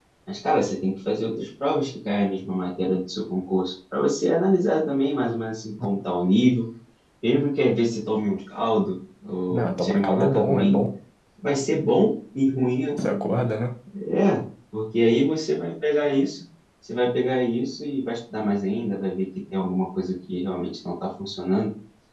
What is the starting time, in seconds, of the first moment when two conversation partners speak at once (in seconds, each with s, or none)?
9.5 s